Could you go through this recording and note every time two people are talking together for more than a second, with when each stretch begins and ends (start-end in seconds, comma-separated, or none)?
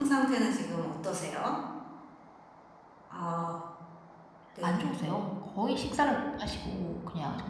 none